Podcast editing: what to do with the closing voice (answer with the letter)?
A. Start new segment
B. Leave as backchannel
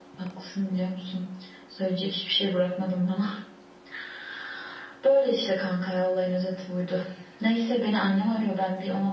B